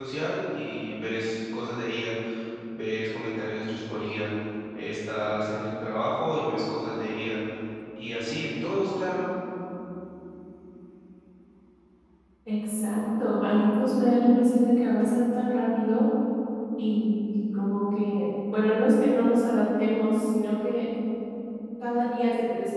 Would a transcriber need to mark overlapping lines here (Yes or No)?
No